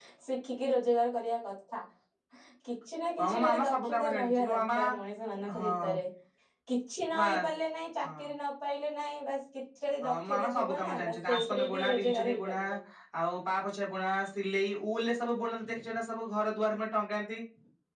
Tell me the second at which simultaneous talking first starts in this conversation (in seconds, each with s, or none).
3.2 s